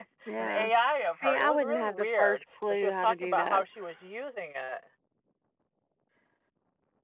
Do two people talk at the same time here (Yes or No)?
Yes